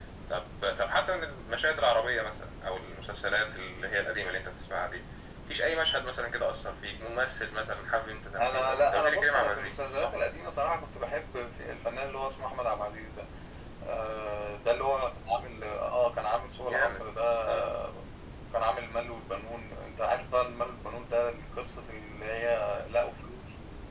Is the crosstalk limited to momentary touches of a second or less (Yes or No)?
No